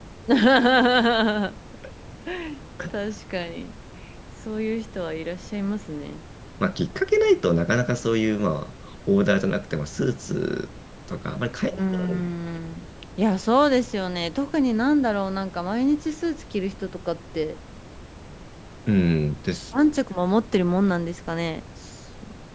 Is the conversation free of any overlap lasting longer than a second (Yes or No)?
Yes